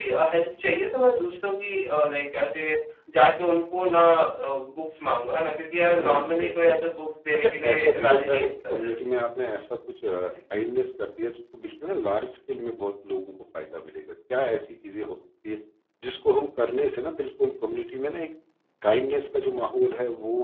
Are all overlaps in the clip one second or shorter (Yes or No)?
No